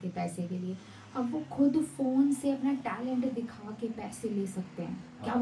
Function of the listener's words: taking over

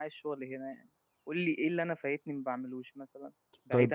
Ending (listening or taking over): taking over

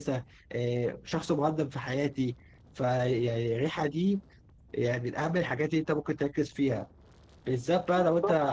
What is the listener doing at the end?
listening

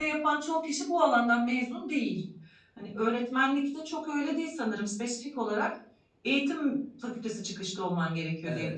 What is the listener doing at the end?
taking over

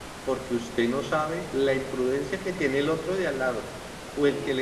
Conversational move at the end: listening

